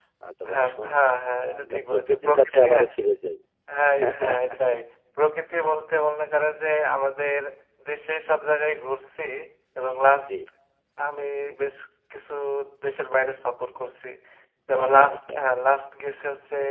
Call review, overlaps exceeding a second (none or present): present